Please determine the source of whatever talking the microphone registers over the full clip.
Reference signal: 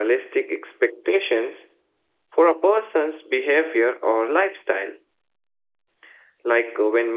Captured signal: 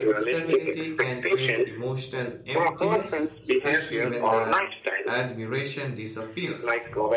both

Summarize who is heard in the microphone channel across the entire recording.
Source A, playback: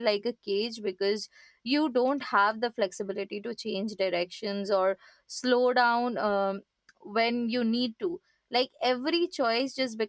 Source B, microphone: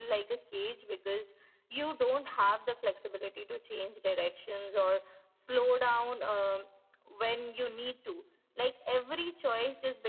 echo only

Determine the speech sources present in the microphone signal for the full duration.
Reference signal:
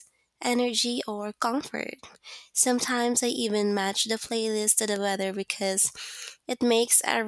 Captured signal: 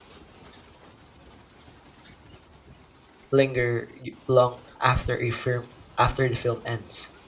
user only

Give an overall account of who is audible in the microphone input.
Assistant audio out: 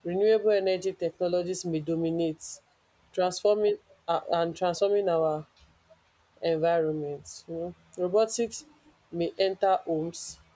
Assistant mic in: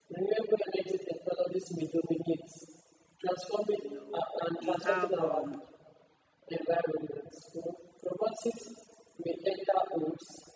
both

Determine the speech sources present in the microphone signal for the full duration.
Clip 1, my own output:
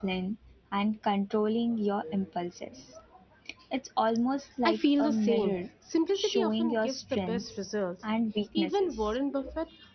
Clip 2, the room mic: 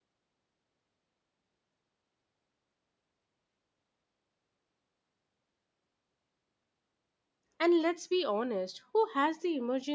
user only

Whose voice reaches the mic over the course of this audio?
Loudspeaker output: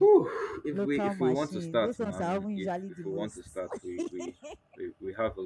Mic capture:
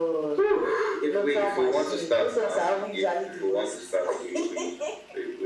echo only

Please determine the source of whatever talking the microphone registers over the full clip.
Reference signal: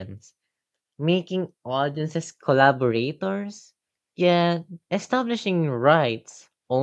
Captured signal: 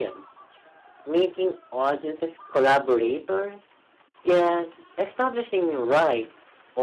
echo only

